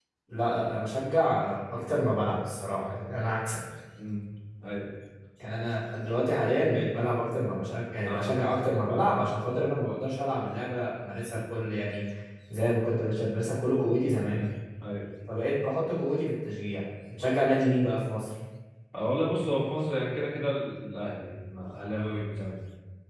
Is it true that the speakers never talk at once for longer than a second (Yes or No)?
Yes